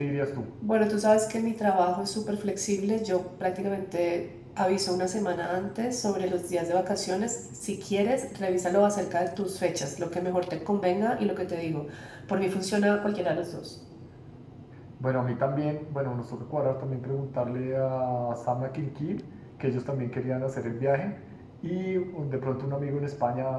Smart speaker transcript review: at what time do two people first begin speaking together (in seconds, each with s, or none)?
none